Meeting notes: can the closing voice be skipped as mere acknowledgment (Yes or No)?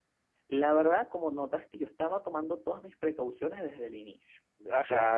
No